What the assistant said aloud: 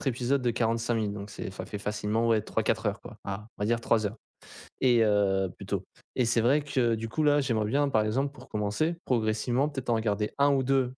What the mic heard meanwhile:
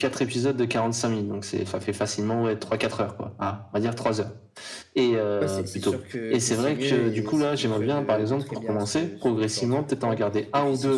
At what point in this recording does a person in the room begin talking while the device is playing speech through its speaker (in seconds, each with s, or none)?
5.4 s